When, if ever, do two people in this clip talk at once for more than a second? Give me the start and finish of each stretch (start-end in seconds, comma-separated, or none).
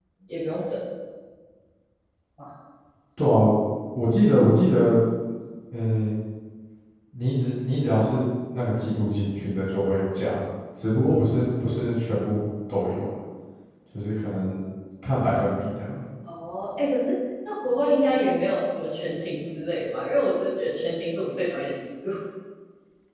none